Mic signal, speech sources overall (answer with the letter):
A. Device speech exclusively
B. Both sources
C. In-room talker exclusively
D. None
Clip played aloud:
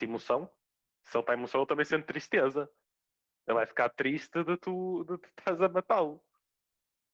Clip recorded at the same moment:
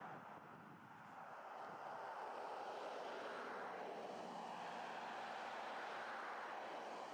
D